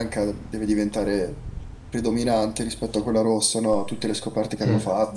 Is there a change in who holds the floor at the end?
Yes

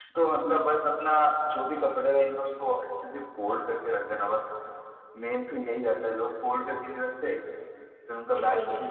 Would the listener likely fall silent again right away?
Yes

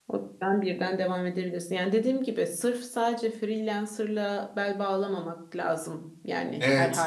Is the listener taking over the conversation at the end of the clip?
Yes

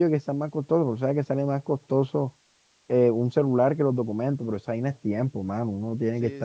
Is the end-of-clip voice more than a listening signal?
No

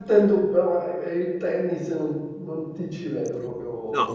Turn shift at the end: Yes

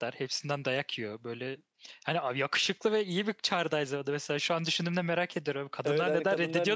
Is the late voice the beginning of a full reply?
Yes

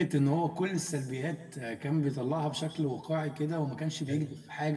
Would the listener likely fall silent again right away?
Yes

